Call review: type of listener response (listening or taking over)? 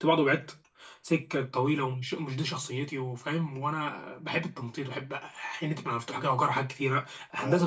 listening